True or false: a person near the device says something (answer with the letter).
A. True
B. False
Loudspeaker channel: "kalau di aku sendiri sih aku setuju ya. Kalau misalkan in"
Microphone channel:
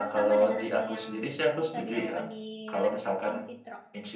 A